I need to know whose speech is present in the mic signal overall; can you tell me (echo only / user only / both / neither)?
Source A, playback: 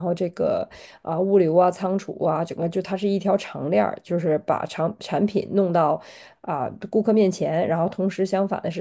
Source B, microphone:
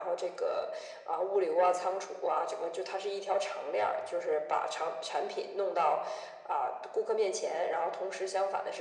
echo only